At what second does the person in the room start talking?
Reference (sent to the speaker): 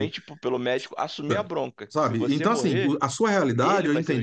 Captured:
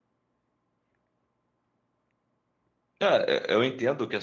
3 s

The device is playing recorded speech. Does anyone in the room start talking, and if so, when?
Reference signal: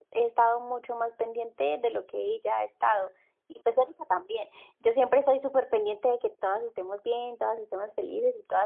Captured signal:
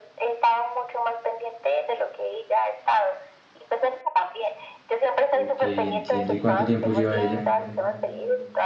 5 s

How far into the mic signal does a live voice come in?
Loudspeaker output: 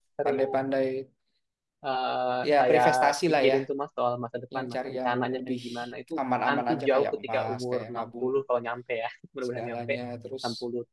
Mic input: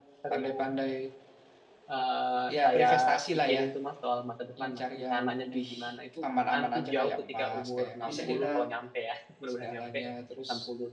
8 s

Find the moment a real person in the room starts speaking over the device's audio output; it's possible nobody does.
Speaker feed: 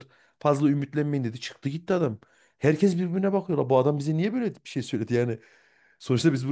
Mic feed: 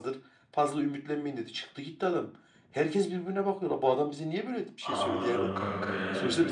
5 s

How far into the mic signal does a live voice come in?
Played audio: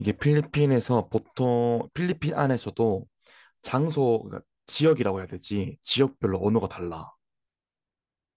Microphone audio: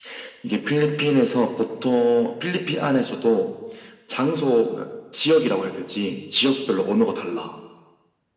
none

